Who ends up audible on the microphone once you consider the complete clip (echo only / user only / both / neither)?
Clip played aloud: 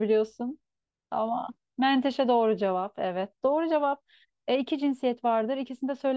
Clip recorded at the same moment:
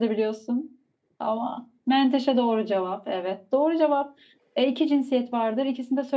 echo only